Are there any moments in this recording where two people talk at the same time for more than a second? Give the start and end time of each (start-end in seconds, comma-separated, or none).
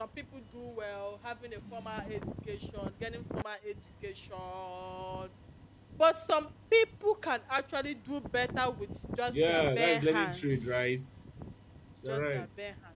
9.3-11.0